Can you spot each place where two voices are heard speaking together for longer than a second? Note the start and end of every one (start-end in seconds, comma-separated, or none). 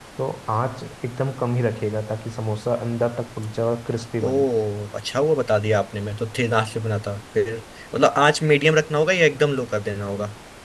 none